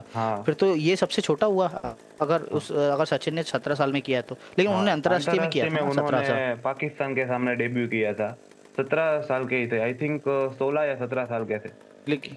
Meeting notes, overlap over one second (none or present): present